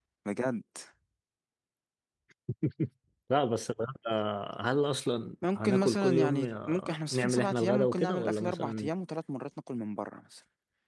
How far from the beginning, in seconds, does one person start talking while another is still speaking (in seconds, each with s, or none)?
5.4 s